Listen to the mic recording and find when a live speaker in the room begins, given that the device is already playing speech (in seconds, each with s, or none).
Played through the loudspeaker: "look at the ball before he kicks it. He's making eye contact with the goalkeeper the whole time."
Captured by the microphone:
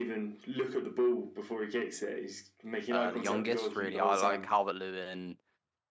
2.9 s